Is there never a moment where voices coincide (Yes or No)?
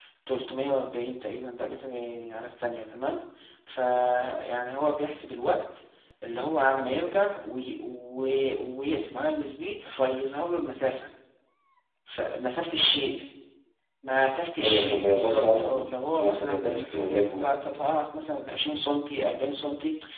No